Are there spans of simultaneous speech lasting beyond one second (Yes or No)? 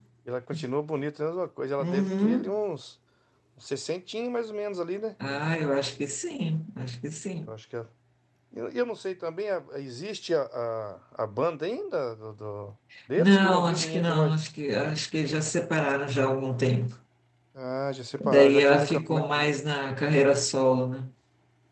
Yes